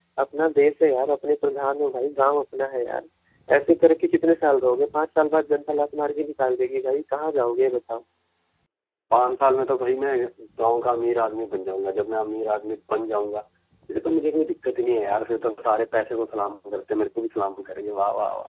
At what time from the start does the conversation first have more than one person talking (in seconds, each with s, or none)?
none